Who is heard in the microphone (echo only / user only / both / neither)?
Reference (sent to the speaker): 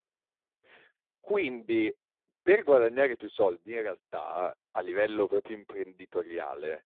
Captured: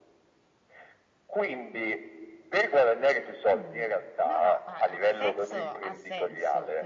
both